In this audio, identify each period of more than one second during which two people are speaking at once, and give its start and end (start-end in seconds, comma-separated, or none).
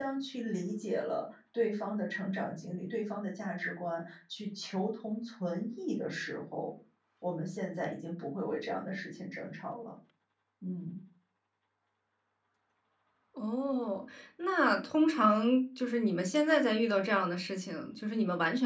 none